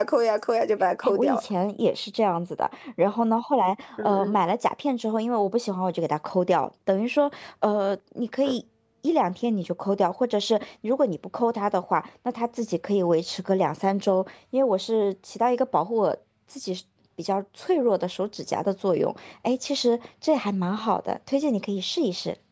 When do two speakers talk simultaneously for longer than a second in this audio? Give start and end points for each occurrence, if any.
none

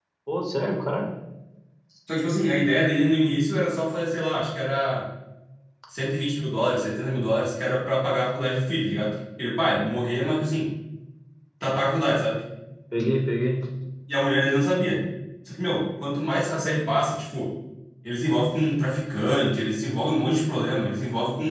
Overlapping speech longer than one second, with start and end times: none

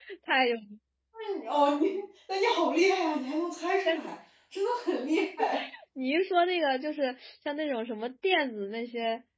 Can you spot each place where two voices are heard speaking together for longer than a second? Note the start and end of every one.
none

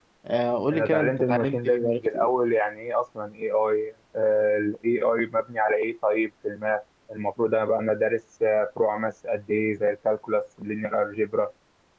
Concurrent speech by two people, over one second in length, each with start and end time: 0.7-2.3

